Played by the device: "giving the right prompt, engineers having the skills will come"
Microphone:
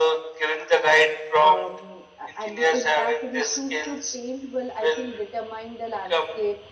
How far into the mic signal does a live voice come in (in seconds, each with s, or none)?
1.4 s